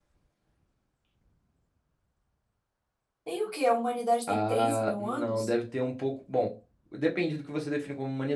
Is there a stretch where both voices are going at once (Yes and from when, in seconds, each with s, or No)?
Yes, from 4.3 s